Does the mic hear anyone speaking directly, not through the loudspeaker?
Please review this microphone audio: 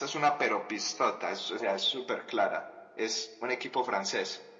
No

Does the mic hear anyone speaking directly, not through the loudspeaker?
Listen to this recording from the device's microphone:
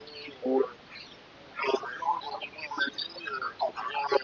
No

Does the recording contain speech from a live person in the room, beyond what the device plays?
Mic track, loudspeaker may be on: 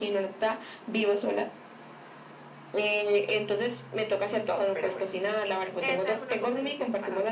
Yes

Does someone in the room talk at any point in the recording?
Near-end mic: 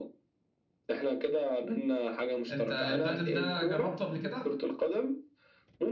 Yes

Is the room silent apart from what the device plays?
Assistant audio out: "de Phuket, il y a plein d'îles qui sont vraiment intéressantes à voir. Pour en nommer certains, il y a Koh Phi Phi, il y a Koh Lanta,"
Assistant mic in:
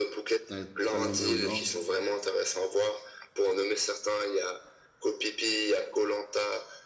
No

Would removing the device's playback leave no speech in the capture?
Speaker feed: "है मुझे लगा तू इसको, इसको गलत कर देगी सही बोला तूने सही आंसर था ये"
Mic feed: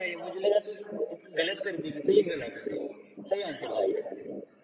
Yes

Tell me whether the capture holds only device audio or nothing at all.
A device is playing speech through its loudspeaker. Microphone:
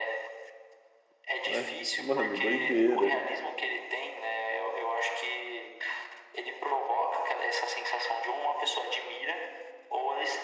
No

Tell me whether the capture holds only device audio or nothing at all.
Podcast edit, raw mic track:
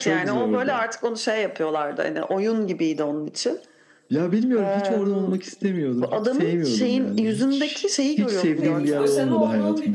No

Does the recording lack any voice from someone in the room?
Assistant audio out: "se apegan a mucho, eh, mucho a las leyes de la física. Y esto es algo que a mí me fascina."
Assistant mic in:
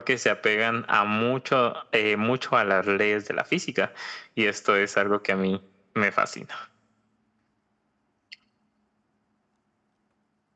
Yes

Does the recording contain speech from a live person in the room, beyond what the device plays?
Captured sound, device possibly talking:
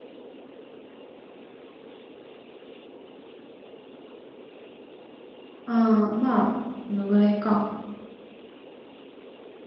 Yes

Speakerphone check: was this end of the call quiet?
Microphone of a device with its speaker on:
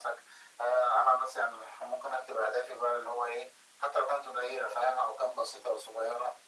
Yes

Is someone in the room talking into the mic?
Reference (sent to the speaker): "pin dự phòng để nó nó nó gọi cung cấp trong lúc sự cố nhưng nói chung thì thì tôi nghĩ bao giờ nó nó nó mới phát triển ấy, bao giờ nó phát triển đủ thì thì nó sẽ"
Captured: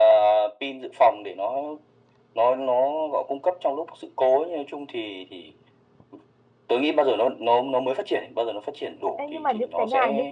Yes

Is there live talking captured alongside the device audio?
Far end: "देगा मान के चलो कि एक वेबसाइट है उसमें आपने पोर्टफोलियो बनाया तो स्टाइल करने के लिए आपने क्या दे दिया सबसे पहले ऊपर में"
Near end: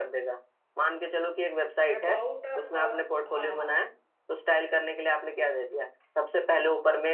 Yes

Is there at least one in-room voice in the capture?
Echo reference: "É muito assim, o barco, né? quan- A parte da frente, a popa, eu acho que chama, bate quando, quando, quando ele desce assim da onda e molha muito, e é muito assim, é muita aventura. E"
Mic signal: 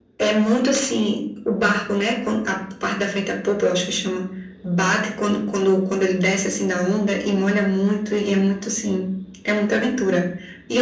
No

